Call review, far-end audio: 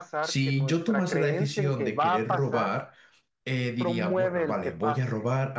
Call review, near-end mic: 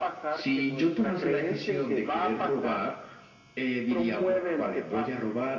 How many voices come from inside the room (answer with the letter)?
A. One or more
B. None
B